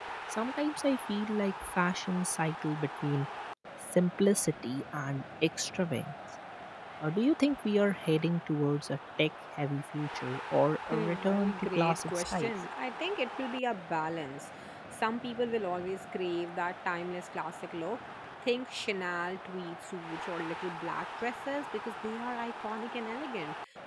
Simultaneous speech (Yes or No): Yes